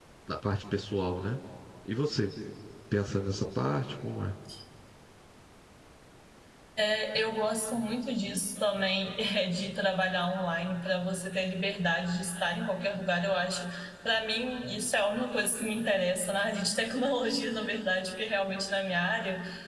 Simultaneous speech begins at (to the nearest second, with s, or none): none